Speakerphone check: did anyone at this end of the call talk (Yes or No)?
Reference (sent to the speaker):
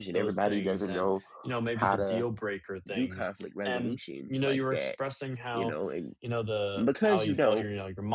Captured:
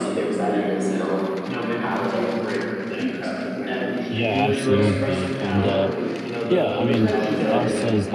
Yes